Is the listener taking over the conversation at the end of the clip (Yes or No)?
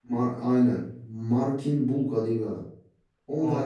No